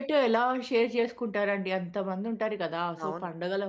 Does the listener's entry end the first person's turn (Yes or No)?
No